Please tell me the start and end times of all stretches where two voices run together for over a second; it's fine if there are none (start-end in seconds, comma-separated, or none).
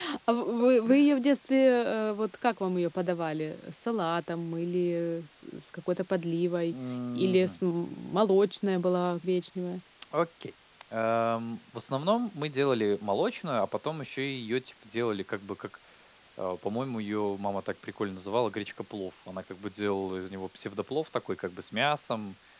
none